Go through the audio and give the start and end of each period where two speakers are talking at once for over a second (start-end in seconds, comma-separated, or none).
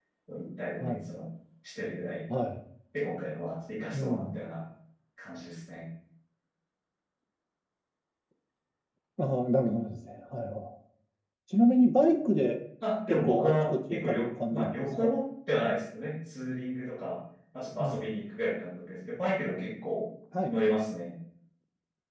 13.1-15.1